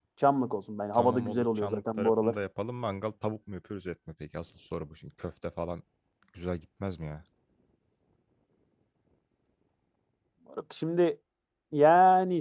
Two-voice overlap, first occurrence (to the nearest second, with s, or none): 1 s